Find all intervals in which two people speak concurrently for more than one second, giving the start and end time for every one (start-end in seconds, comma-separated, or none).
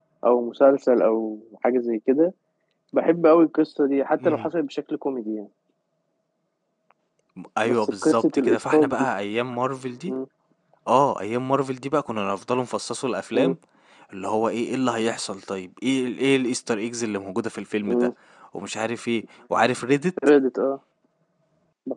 7.7-8.9